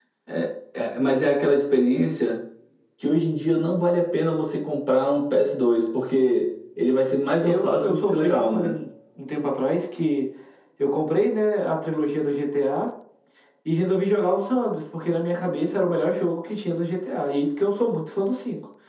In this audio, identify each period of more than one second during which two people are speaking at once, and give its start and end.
7.4-8.7

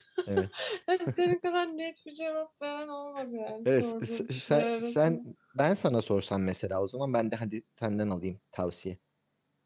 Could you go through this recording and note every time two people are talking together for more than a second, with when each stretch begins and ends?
3.6-5.2

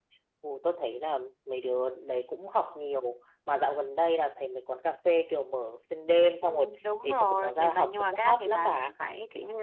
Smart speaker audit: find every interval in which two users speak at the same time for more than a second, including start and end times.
7.0-8.9

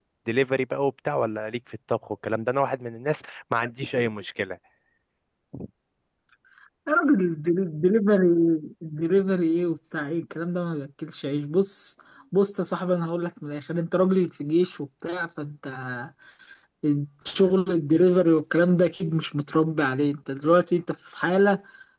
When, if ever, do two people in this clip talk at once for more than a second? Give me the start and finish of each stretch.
none

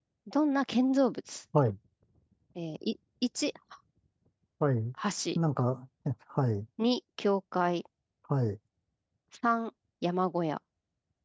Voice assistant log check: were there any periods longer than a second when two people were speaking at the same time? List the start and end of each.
none

